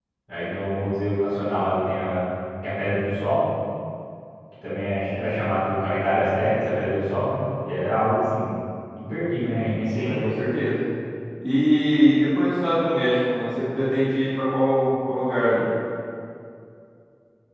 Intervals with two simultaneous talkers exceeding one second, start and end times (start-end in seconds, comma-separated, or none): none